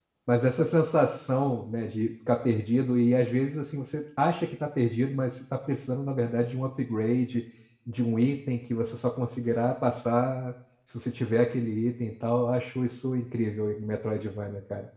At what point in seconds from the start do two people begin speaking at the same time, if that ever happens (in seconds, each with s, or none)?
none